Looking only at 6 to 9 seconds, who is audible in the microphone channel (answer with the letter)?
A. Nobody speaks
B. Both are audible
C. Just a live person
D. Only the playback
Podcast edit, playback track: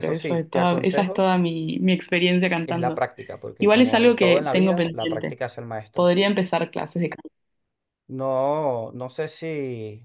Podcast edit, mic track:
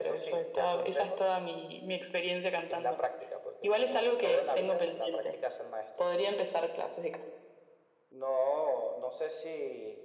D